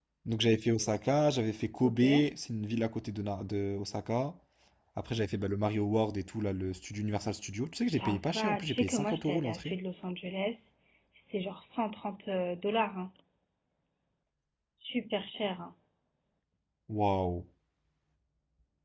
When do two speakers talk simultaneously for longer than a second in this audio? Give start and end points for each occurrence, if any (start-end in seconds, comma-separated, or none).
7.7-9.8